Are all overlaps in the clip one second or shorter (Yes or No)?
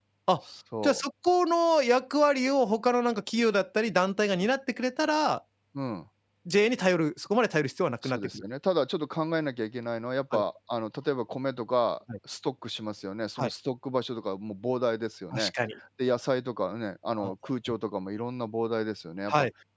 Yes